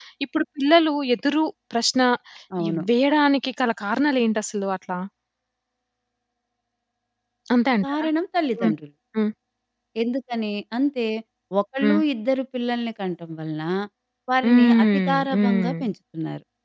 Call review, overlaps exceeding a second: present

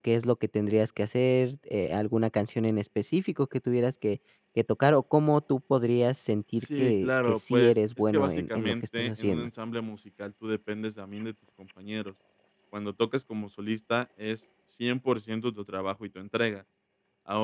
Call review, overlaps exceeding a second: present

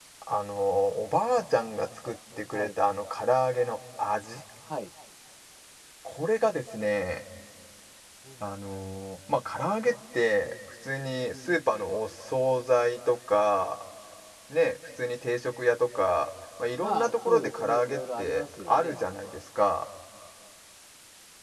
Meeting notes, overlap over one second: present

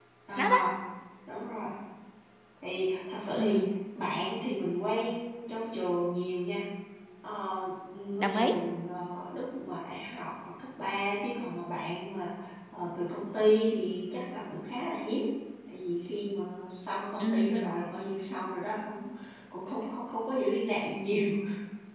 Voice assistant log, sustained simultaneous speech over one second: none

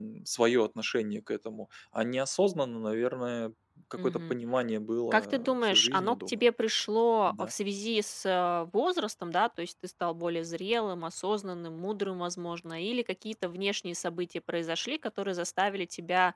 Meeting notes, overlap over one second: present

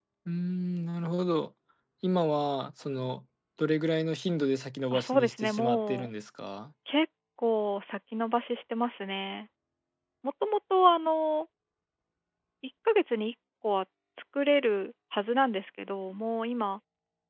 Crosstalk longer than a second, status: present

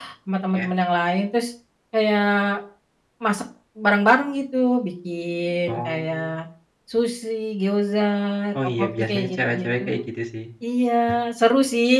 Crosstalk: present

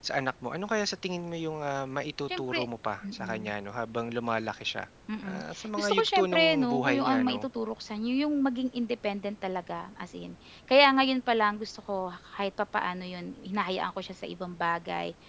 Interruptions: present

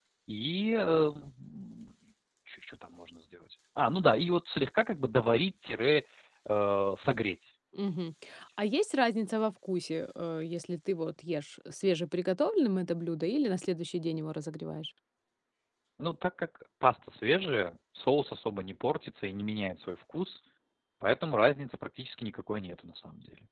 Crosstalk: none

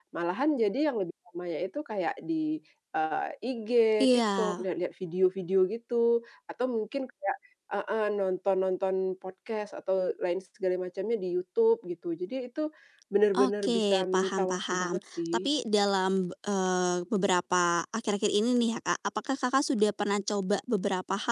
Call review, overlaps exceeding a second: present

